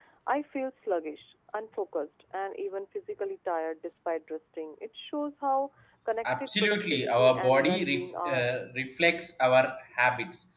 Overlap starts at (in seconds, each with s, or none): 6.2 s